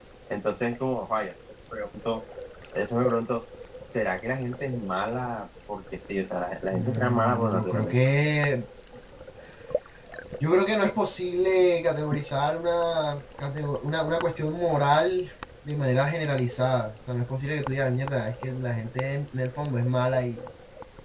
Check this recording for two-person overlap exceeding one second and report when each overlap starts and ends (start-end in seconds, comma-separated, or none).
6.7-7.9